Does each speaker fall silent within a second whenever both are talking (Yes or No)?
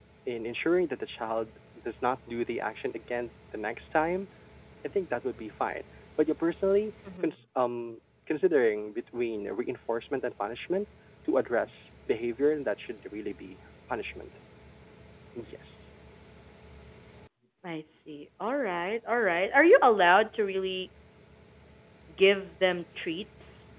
Yes